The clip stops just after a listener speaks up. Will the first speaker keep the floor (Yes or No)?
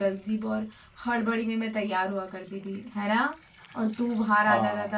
Yes